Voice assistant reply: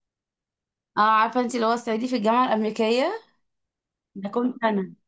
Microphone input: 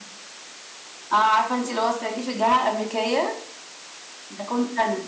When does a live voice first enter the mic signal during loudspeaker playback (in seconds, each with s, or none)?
none